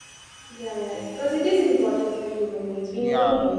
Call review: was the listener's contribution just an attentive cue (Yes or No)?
No